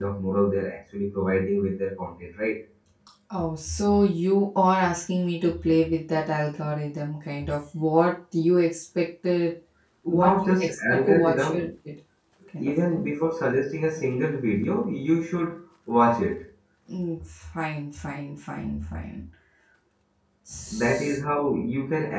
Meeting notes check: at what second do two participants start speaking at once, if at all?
10 s

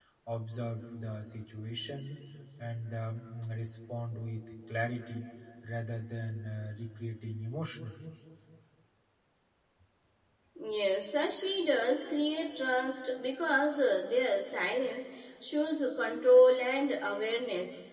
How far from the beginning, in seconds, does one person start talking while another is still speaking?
none

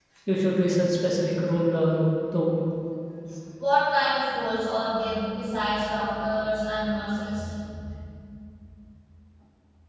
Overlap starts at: none

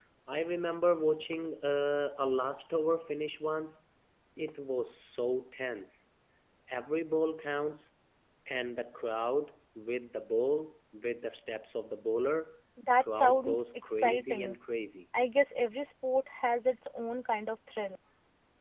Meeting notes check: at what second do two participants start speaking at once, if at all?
13 s

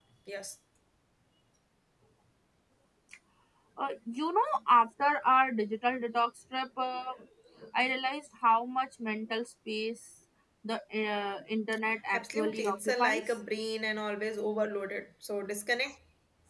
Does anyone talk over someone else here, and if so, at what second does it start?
12 s

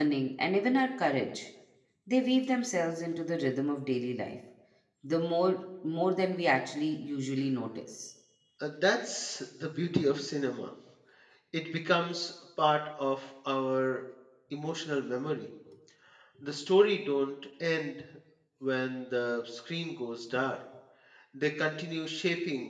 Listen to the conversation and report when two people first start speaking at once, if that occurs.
none

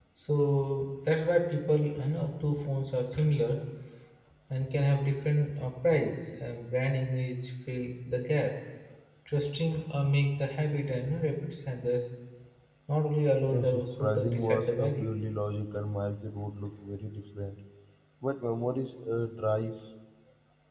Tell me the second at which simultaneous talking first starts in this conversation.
14 s

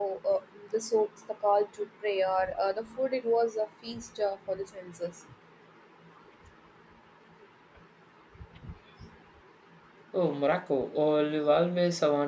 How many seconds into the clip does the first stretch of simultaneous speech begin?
none

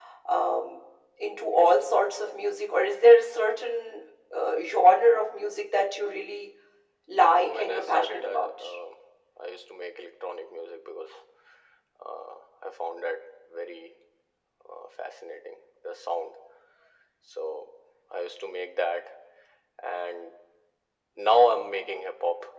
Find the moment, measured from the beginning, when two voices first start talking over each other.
7 s

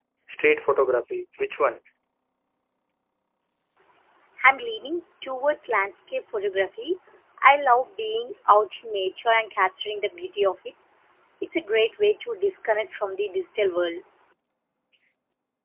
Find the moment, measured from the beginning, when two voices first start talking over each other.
none

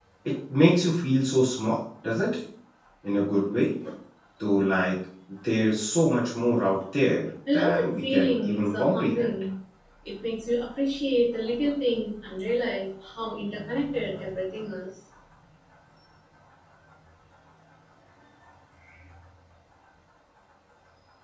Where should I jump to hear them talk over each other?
7 s

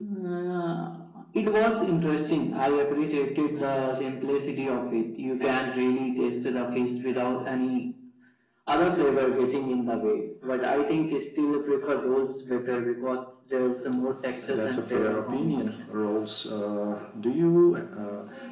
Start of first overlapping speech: 14 s

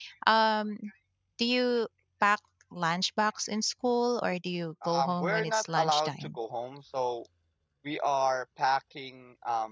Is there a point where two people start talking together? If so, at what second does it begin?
5 s

